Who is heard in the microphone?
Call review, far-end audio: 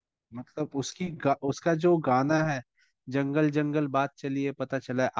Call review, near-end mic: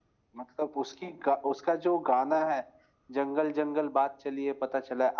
echo only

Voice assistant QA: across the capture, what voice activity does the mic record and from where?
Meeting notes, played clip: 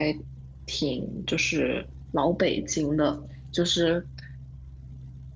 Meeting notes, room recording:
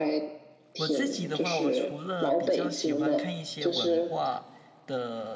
both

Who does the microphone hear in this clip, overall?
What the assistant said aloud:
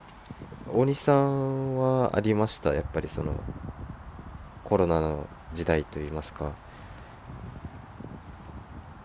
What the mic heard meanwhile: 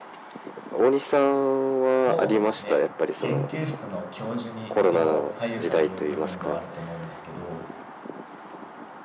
both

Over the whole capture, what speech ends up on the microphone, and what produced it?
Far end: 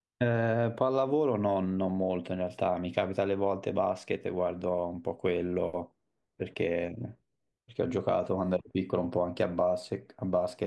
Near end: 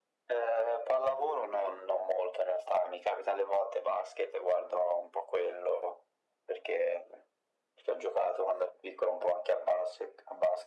echo only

